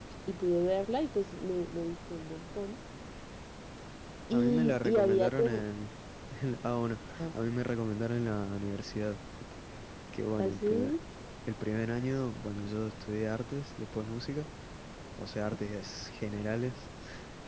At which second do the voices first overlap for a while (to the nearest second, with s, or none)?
4 s